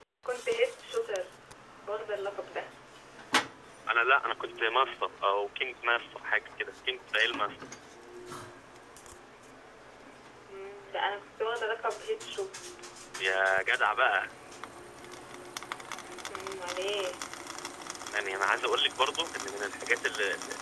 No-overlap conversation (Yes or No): Yes